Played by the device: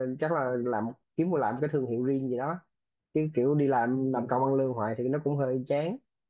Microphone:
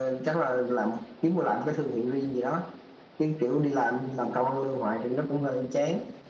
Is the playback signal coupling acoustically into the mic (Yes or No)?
Yes